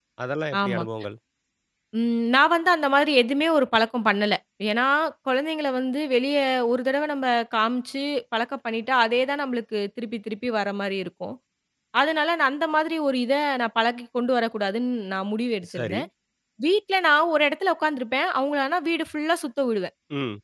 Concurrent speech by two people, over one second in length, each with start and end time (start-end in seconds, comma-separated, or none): none